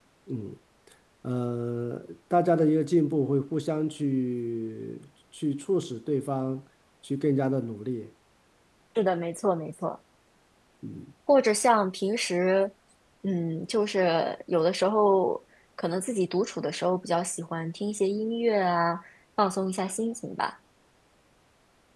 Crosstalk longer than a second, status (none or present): none